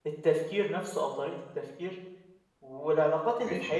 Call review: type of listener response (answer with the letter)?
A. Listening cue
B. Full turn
A